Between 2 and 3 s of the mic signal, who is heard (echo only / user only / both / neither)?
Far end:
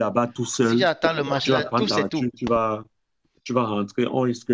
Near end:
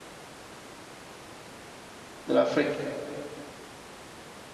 user only